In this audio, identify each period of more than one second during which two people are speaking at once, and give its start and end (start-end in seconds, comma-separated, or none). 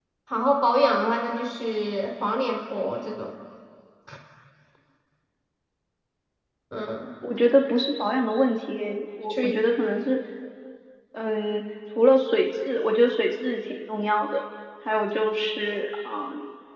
none